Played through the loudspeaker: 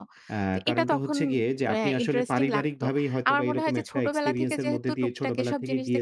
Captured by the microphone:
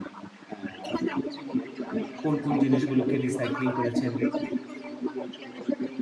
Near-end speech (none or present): present